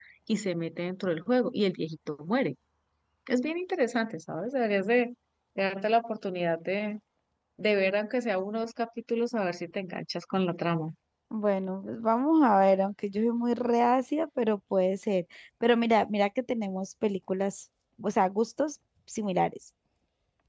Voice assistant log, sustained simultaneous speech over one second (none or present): none